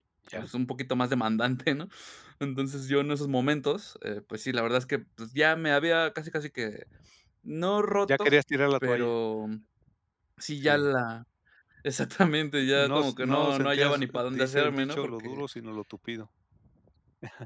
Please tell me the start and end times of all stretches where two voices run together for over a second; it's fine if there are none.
12.8-15.4

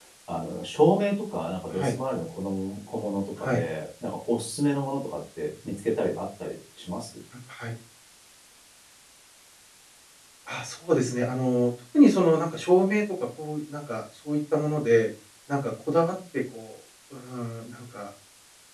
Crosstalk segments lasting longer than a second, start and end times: none

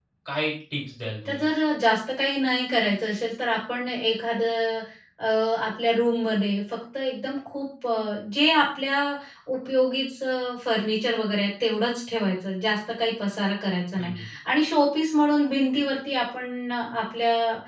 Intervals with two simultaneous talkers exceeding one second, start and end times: none

